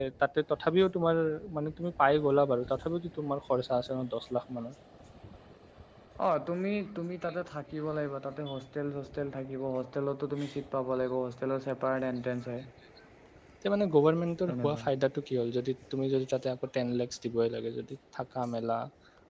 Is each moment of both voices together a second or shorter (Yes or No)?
Yes